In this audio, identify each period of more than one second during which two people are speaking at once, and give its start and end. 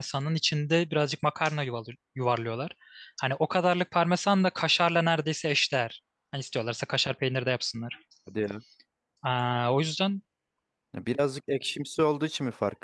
none

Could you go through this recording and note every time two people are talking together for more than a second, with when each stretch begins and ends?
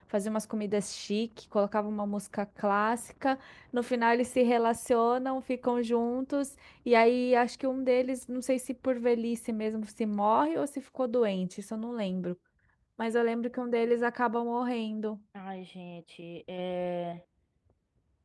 none

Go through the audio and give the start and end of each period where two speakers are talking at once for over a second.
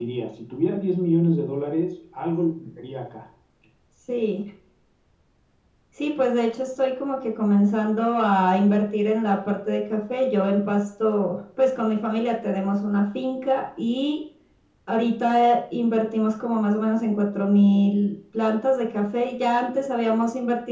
none

